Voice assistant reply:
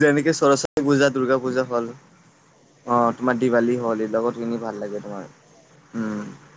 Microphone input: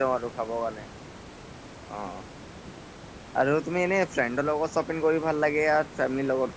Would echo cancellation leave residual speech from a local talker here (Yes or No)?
Yes